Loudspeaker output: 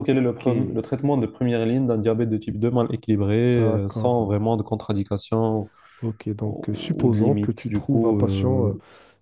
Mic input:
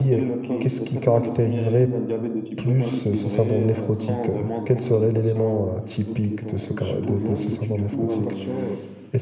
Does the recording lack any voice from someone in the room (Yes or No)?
No